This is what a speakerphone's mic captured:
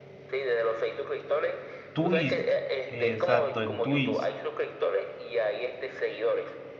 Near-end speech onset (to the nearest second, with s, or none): 2 s